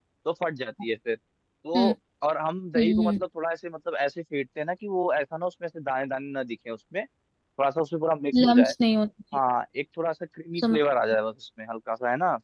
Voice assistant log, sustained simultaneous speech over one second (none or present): none